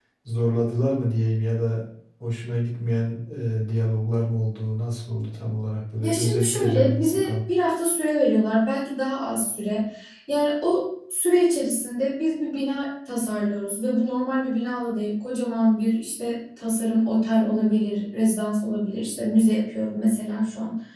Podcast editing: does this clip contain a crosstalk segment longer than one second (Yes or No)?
Yes